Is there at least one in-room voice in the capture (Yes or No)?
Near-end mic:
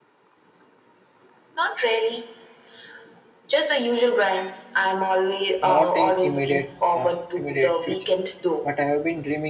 Yes